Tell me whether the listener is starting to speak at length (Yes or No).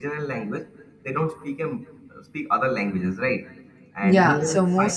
Yes